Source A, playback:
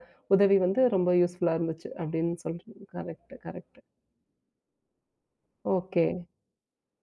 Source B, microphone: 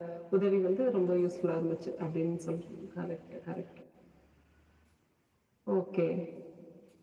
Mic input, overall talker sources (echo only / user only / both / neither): echo only